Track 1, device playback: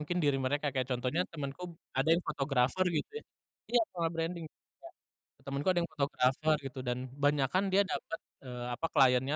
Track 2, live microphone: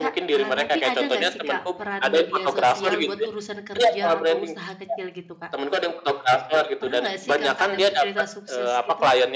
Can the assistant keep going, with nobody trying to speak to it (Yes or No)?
No